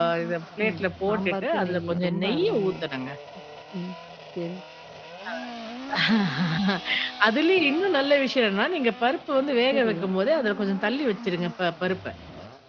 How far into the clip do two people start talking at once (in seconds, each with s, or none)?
0.7 s